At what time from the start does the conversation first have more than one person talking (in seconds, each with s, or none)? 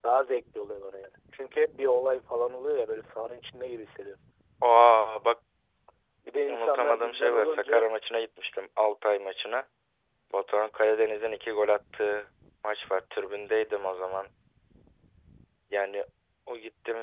6.5 s